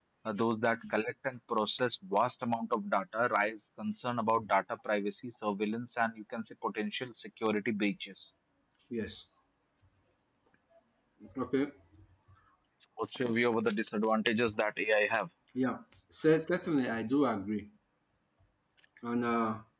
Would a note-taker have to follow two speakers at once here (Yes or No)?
No